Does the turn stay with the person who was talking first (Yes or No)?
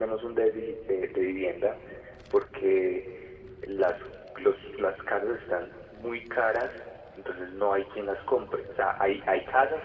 Yes